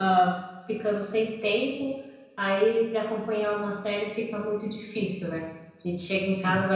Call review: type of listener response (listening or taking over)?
listening